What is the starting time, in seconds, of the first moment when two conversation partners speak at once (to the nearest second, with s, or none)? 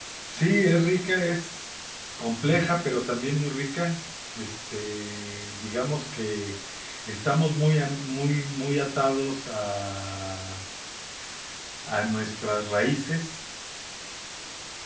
none